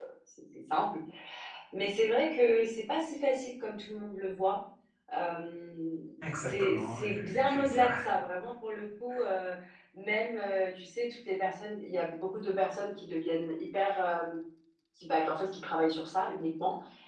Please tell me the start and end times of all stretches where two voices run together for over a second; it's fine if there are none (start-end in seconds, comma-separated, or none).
6.4-7.9